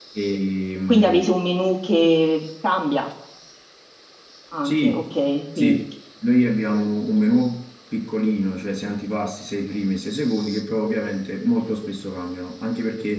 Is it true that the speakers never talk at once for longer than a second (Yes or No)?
Yes